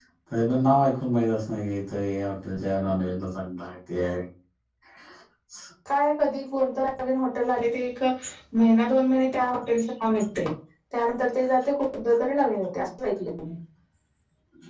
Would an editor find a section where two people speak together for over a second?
No

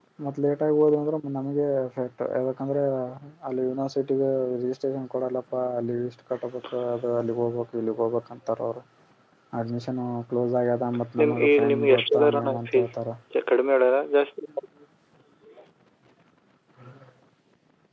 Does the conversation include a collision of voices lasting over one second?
Yes, from 11.2 s

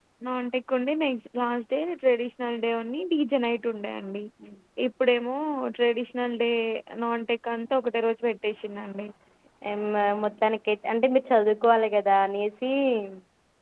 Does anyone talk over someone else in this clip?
No

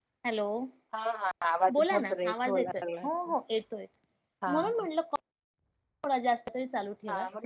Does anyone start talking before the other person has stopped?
Yes, from 1.7 s

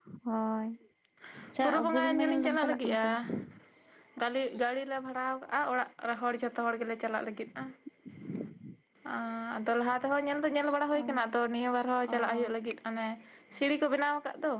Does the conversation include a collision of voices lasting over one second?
Yes, from 1.6 s

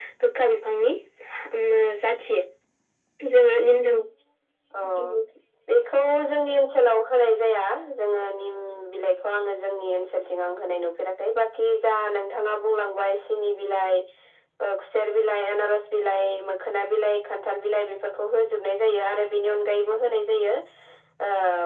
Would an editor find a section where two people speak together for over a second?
No

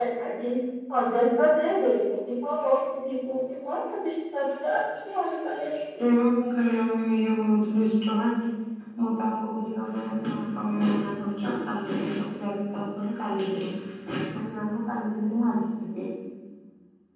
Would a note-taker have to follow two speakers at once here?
No

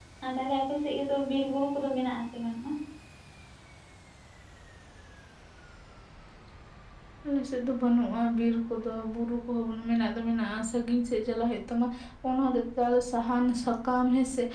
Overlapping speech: No

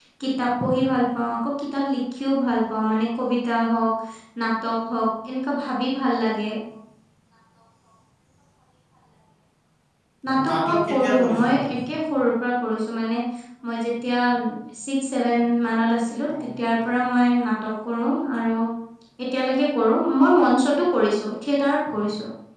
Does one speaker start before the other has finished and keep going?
Yes, from 10.5 s

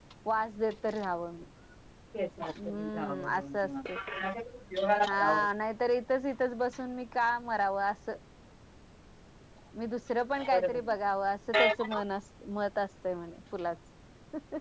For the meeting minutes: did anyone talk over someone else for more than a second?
Yes, from 2.6 s

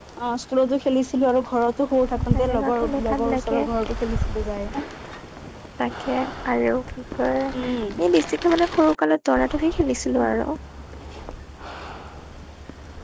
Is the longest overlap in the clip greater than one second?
Yes, from 2.4 s

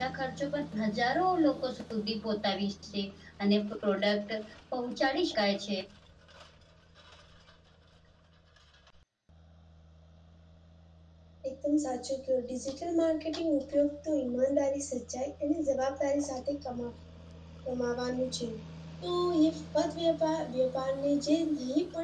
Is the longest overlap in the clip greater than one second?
No

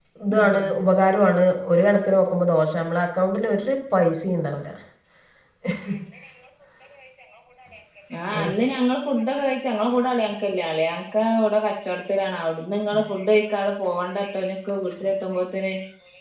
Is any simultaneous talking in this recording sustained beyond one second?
No

